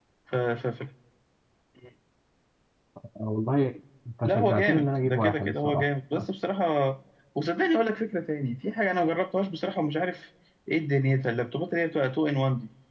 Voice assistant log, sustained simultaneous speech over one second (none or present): present